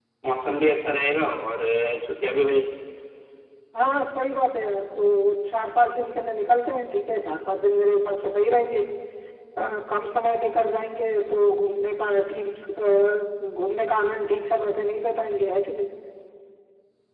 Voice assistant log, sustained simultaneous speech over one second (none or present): none